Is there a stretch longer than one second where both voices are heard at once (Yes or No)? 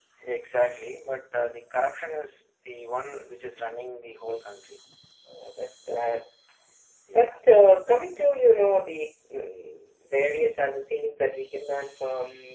No